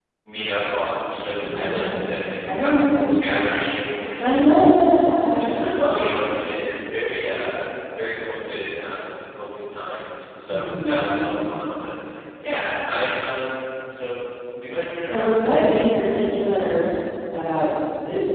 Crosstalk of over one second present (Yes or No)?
Yes